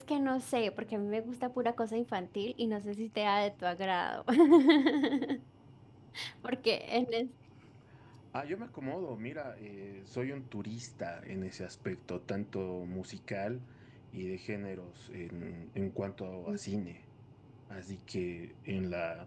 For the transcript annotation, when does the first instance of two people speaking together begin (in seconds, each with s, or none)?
none